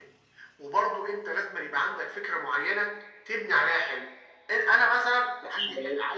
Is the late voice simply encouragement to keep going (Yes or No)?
No